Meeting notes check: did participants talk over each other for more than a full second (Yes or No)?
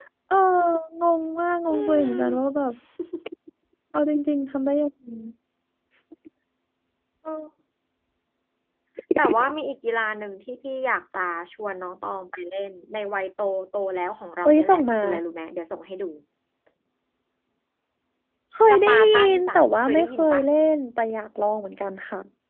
Yes